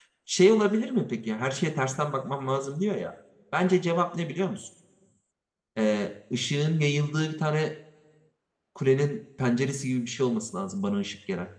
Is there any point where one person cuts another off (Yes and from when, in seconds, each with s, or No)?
No